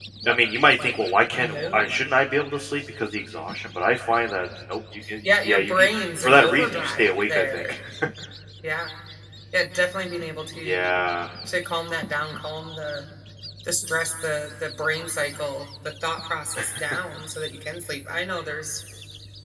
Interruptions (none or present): present